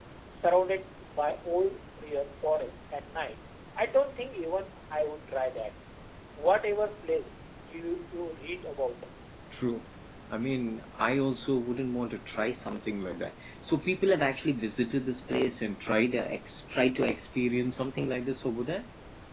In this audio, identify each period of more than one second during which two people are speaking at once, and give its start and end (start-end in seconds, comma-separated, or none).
none